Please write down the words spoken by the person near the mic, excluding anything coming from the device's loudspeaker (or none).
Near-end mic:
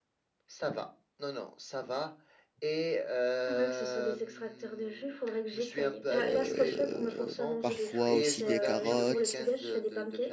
euh, parfois aussi des carottes.